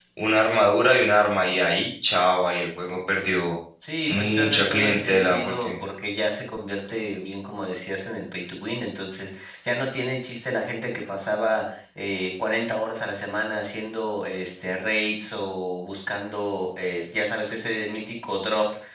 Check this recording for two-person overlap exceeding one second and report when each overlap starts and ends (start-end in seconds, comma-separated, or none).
4.1-5.7